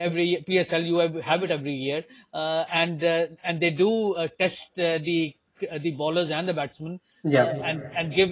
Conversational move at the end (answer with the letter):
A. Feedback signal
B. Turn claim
A